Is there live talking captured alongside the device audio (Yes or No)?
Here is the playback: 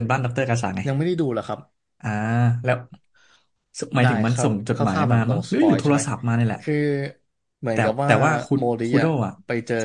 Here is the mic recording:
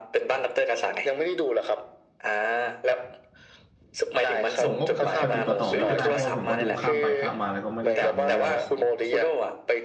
Yes